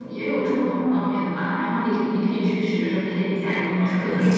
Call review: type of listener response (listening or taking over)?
taking over